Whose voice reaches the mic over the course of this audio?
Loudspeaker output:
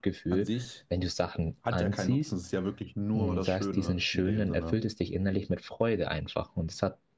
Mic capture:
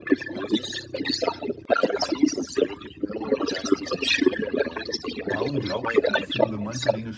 both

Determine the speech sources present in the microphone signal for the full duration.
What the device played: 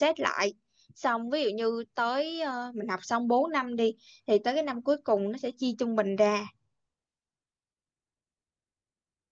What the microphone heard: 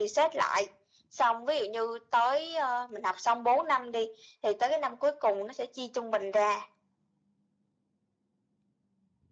echo only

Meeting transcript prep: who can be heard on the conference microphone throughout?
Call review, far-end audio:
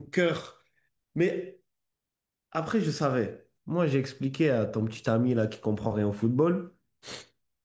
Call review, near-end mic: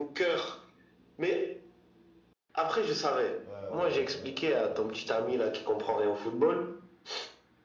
both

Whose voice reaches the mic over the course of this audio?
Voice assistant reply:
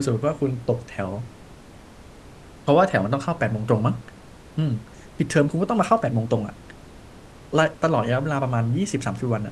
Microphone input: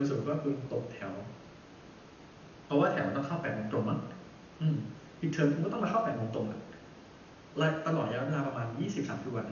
echo only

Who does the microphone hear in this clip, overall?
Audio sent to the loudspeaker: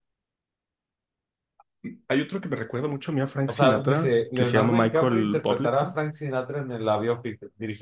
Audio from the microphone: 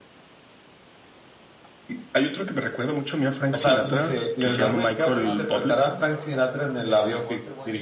both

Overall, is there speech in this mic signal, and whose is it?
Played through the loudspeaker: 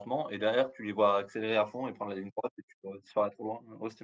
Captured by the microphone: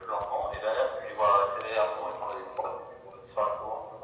echo only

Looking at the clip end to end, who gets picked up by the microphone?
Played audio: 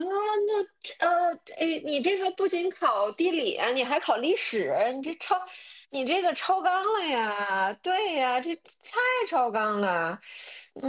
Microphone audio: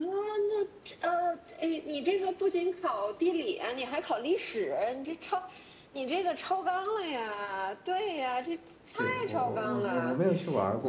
both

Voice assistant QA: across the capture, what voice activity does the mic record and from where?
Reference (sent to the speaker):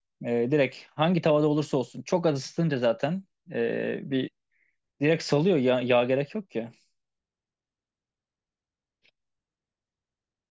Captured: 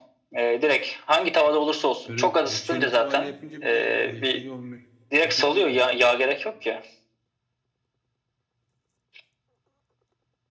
both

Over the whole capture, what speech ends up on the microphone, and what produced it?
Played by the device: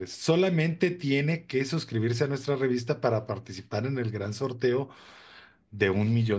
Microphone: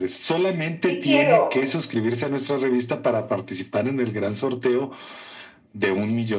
both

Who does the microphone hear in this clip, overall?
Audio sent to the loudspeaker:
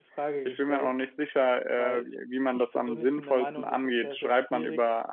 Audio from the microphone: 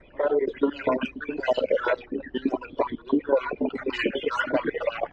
echo only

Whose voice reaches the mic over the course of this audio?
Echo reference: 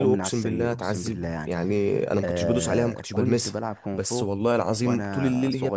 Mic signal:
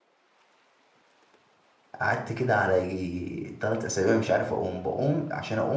user only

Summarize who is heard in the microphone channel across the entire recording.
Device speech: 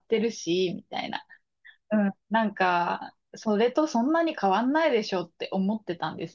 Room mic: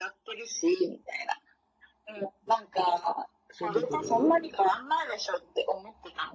both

